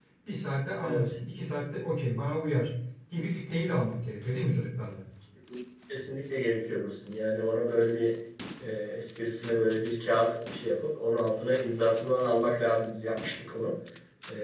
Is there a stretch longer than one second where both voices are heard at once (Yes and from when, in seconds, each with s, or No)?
No